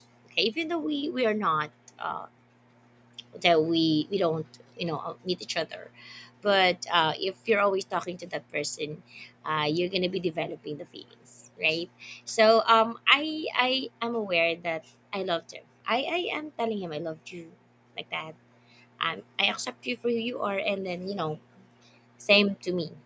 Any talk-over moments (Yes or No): No